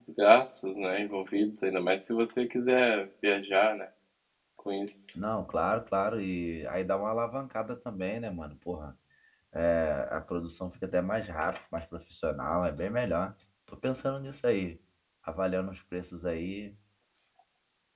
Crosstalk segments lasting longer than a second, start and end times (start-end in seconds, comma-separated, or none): none